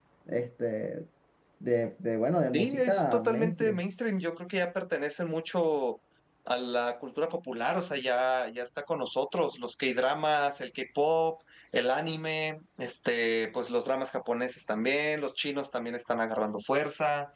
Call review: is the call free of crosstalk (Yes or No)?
No